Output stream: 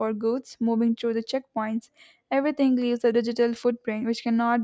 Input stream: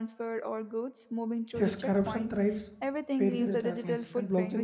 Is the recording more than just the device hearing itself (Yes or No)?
Yes